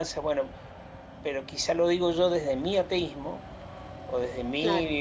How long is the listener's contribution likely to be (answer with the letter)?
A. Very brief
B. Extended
A